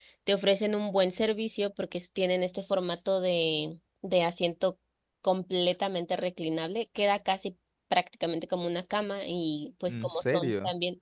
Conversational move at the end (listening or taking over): listening